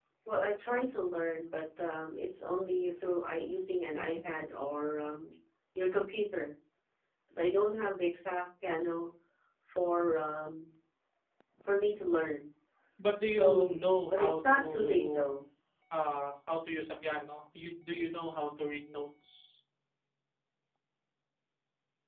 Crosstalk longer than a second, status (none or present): present